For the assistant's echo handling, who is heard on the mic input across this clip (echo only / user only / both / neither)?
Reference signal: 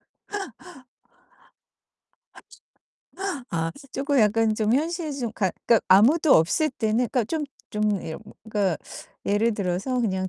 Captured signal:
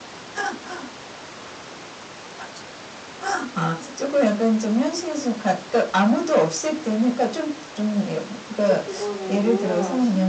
both